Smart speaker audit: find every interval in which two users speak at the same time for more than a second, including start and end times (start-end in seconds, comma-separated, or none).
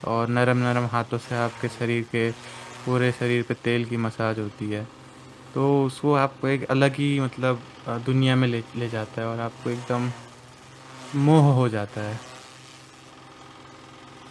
none